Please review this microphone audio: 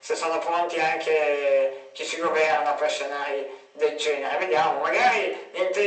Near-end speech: none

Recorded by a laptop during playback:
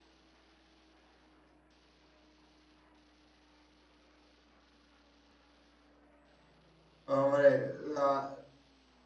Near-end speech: present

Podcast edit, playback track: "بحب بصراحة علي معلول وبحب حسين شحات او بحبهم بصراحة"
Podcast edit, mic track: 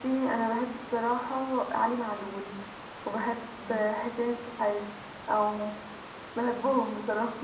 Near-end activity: none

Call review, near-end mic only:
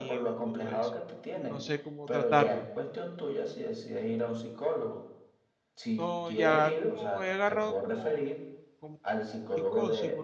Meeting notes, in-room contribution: present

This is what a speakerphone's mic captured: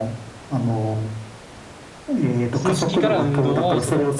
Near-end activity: present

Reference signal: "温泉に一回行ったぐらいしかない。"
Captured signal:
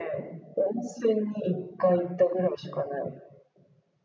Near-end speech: none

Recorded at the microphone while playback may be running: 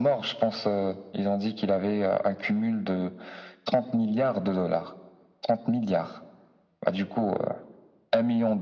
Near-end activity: none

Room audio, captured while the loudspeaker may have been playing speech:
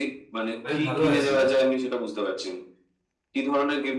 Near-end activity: present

